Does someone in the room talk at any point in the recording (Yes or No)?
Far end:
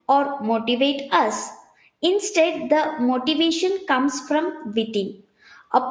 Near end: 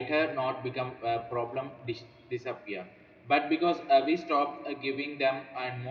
Yes